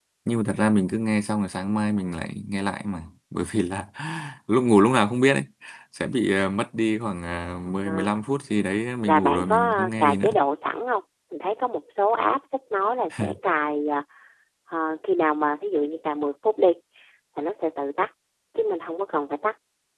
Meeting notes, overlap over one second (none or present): present